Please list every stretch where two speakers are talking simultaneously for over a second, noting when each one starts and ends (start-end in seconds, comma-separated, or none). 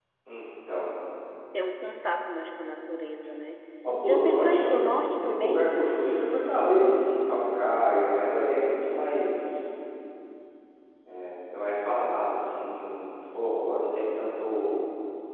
4.0-5.6